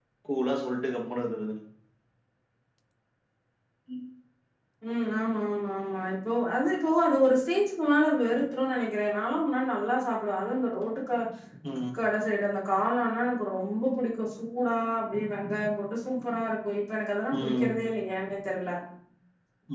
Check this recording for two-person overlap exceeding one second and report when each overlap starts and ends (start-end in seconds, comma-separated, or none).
none